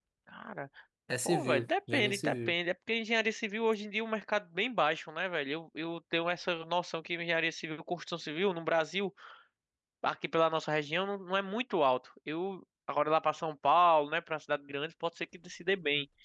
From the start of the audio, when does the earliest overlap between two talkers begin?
1.2 s

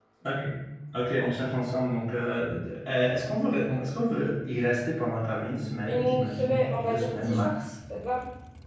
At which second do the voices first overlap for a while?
5.7 s

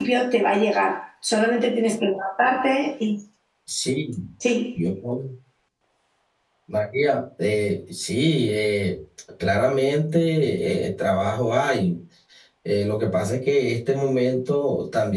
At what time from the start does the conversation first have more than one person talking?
none

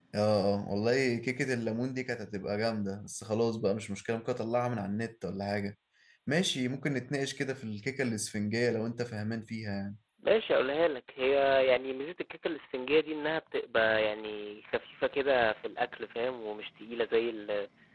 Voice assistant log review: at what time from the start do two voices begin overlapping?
none

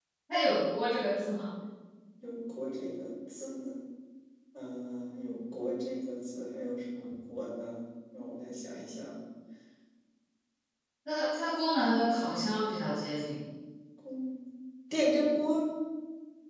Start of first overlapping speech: none

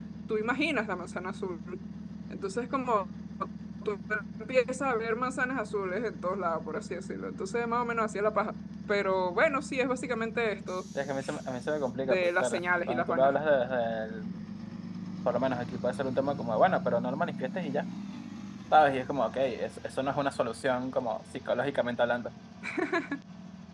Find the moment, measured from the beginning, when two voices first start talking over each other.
12.0 s

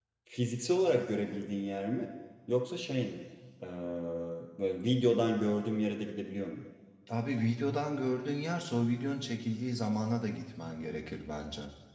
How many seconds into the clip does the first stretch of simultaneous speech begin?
none

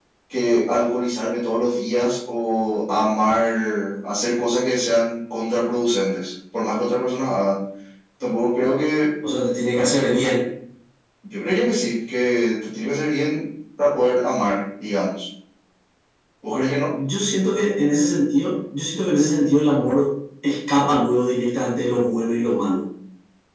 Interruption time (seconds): none

